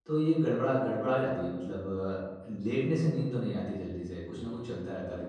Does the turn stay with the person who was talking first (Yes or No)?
No